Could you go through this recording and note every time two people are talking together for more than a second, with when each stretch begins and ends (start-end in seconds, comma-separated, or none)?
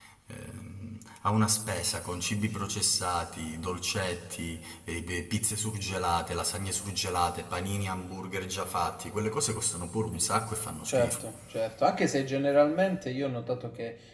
none